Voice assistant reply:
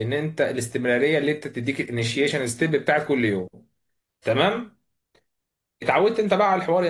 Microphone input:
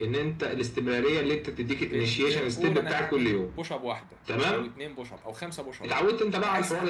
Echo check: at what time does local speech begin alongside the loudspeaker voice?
1.8 s

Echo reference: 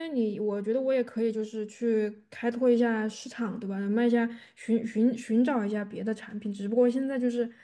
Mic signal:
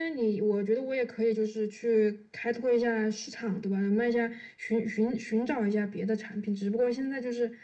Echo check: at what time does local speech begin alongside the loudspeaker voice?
none

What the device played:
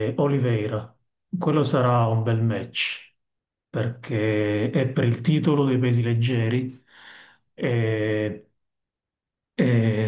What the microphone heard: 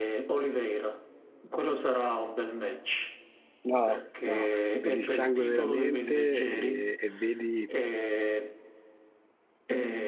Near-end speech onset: 3.6 s

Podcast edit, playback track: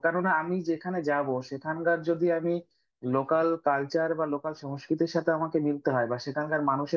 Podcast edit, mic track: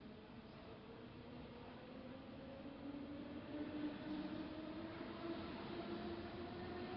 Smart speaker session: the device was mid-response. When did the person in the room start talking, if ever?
none

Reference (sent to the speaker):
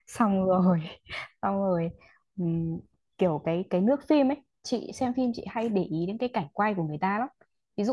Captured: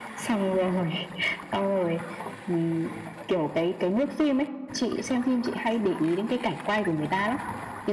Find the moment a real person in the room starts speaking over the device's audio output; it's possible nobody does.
none

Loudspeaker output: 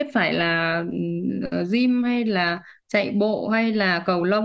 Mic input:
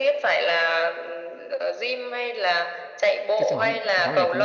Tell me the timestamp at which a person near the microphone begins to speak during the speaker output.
3.4 s

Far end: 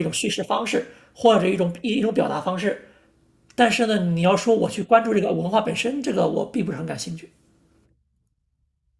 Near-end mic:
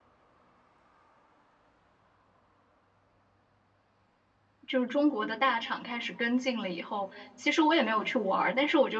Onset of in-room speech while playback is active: 4.7 s

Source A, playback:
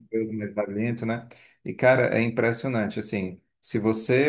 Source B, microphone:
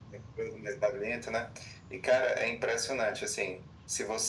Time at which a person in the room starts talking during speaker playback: none

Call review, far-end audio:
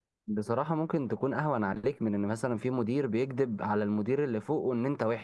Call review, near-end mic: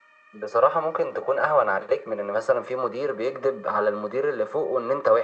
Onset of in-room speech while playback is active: none

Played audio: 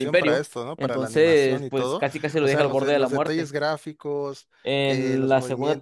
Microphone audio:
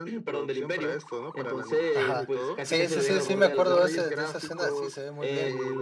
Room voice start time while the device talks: 1.9 s

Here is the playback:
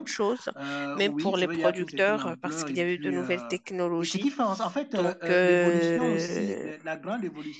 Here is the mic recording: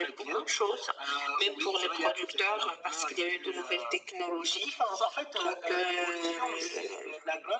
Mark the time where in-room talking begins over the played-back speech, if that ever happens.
none

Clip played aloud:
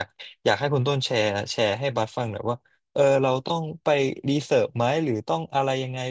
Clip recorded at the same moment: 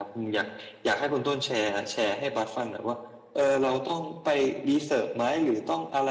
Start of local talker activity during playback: none

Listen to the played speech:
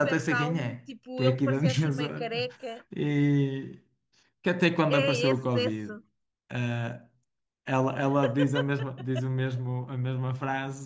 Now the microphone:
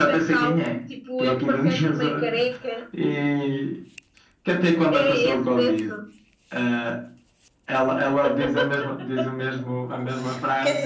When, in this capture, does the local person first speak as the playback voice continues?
9.9 s

